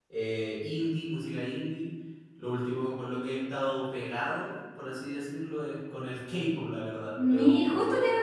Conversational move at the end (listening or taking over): taking over